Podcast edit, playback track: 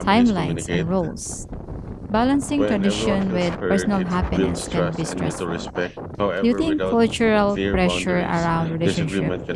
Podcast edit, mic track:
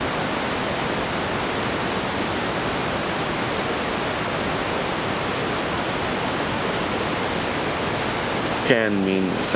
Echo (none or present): none